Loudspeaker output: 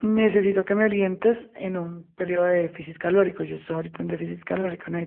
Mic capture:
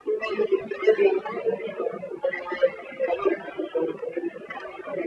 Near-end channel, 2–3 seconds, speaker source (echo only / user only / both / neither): echo only